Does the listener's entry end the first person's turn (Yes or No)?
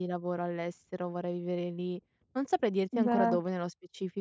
No